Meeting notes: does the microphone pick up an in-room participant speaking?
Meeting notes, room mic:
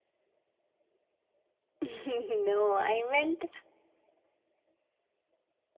Yes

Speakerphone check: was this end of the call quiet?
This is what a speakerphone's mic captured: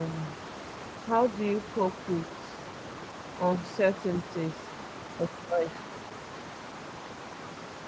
No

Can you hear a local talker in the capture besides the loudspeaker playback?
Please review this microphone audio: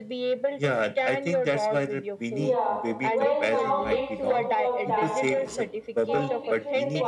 Yes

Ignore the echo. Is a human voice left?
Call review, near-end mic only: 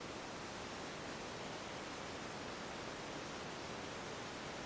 No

